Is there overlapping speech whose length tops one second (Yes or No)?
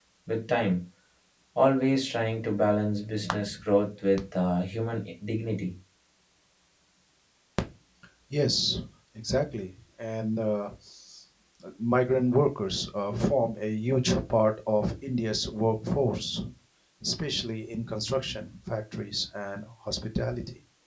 No